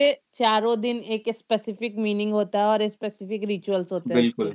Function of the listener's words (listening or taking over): taking over